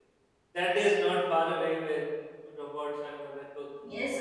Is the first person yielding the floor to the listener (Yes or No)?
Yes